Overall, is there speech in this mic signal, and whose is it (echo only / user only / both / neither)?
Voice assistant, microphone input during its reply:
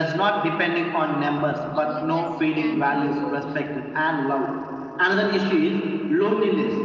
both